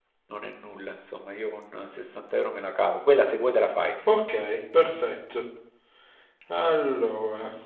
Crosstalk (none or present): none